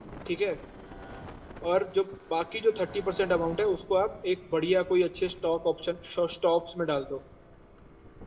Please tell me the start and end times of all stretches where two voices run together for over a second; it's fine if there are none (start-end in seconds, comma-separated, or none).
none